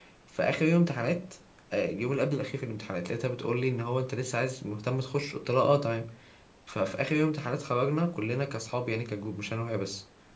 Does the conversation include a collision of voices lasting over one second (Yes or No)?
No